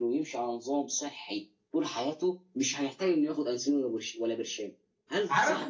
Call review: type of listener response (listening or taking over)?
taking over